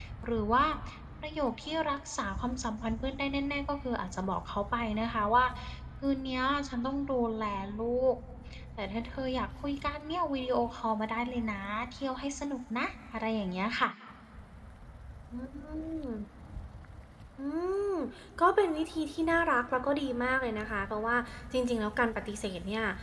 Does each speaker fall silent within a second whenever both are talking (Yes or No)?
Yes